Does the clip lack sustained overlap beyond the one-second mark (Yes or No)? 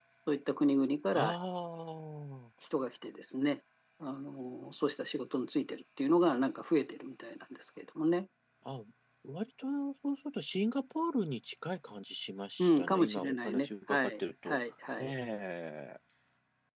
No